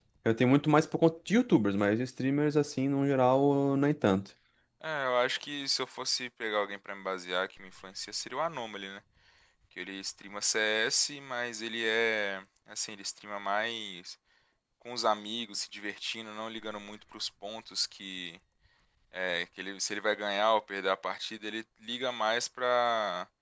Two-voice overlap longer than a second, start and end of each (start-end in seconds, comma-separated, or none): none